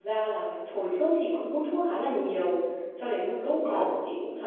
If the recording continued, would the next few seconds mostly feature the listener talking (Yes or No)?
No